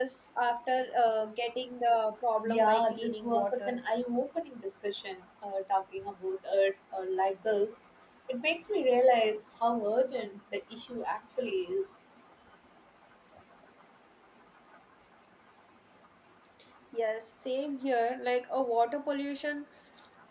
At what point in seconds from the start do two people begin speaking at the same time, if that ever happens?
2.5 s

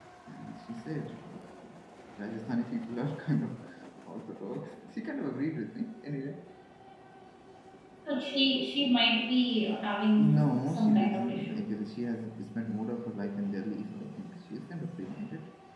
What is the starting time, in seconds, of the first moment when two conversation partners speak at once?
10.2 s

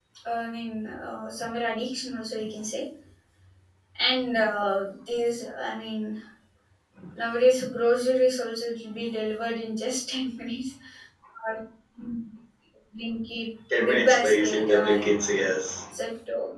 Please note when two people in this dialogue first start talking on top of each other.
13.8 s

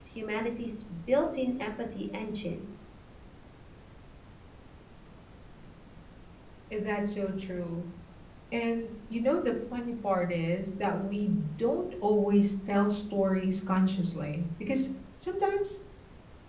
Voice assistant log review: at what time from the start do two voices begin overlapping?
none

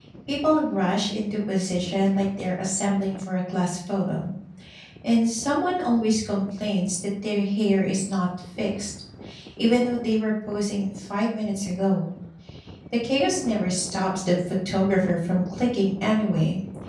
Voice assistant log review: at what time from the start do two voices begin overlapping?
none

